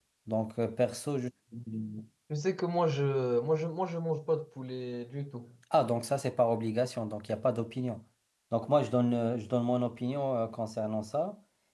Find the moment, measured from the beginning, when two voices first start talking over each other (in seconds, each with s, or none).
none